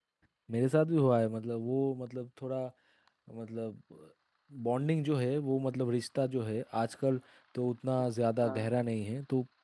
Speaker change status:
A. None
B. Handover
A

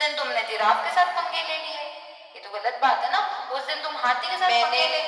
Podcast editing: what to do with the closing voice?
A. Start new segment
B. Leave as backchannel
B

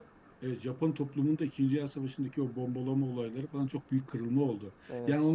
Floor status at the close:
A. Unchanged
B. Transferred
A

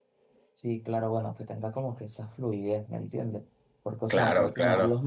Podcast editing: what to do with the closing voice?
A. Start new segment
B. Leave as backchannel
B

